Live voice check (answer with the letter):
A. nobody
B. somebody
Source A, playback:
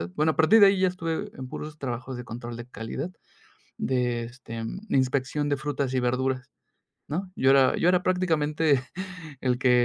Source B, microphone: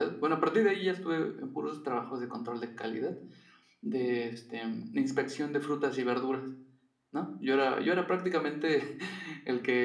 A